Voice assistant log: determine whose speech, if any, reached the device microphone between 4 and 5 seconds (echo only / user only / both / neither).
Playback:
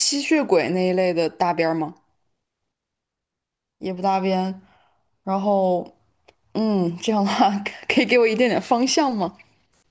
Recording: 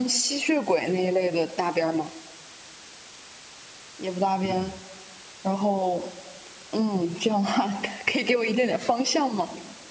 both